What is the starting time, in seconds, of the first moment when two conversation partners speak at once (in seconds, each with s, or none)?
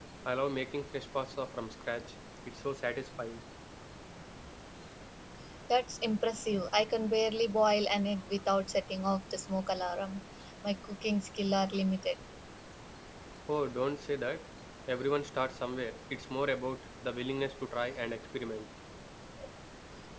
none